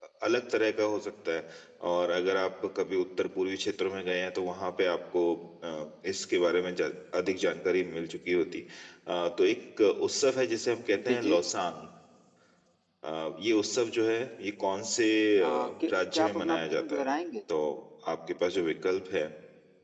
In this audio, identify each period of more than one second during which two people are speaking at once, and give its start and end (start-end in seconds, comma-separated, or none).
15.4-17.1